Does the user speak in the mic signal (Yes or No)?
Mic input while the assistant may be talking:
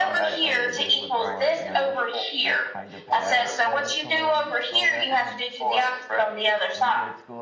Yes